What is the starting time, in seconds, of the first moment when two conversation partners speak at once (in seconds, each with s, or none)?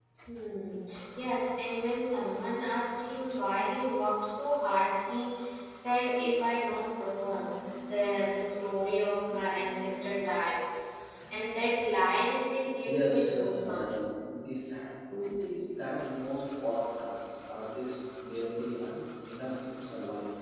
12.8 s